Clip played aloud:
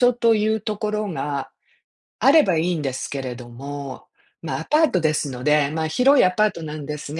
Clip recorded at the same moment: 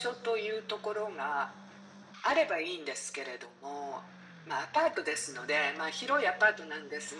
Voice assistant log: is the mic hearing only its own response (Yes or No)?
Yes